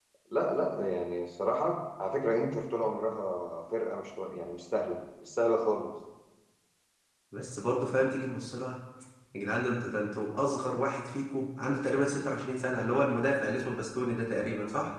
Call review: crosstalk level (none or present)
none